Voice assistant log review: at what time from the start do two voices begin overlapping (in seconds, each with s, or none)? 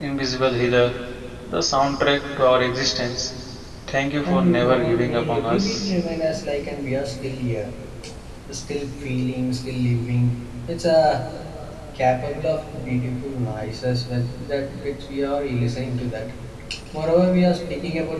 4.2 s